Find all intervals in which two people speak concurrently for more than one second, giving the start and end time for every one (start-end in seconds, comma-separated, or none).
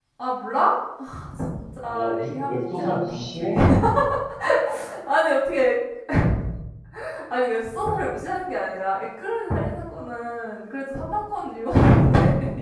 1.8-3.5